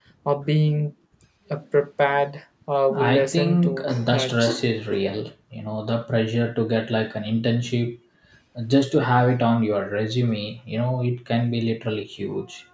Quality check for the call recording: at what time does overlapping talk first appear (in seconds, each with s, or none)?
2.9 s